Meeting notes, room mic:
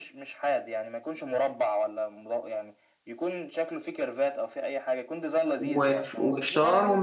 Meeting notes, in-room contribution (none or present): present